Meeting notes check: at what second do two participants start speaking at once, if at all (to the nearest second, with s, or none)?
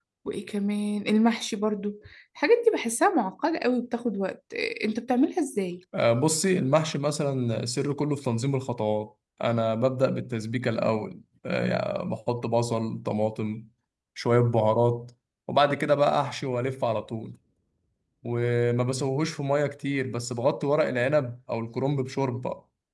none